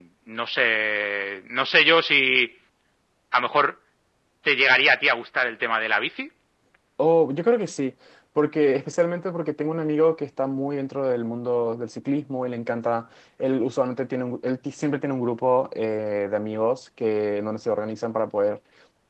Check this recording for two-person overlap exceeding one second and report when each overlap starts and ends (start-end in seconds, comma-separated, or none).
none